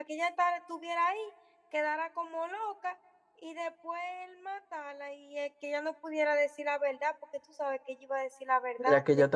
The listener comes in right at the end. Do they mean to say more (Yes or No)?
Yes